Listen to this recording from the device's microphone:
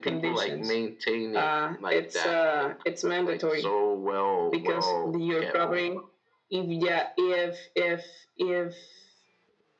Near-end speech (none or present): none